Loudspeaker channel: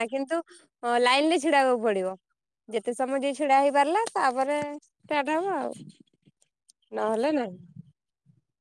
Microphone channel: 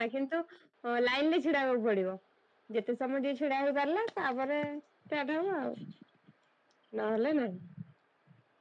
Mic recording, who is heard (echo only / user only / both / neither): echo only